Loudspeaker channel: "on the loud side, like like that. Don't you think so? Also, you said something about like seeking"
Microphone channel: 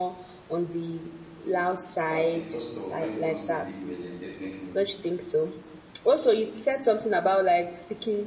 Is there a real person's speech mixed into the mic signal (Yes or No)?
Yes